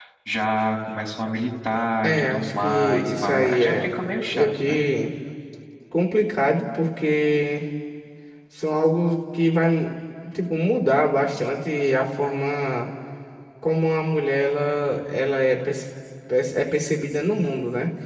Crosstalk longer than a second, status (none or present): present